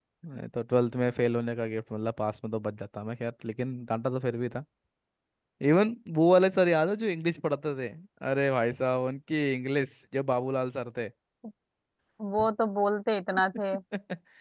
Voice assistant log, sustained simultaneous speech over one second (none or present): none